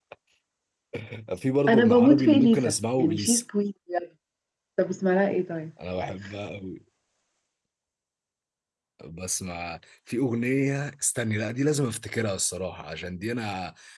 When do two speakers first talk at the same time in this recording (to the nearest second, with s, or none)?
2 s